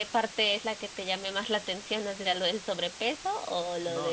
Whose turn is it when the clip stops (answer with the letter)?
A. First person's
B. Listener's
B